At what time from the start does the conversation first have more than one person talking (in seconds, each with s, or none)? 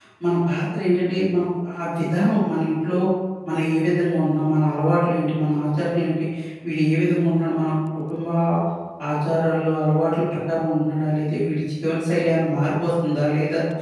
none